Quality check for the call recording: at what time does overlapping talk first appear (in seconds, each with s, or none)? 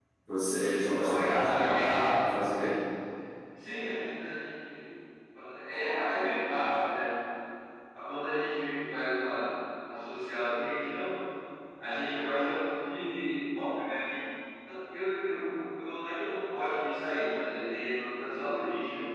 0.7 s